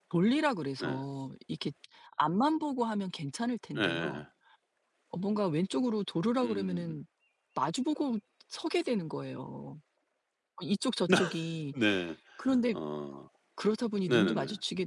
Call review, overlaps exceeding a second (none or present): none